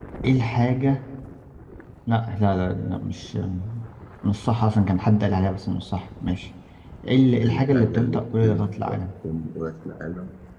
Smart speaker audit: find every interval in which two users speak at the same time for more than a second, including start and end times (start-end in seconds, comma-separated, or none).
7.4-9.0